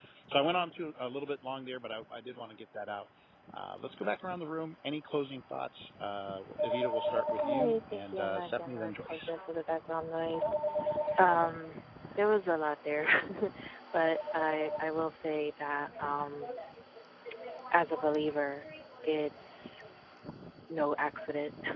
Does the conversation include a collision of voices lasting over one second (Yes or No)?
Yes